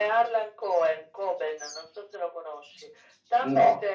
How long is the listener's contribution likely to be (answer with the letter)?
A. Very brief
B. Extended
A